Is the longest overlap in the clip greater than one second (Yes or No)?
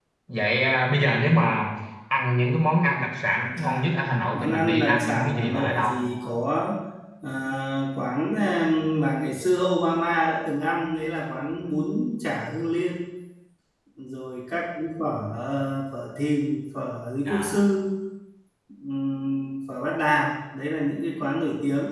Yes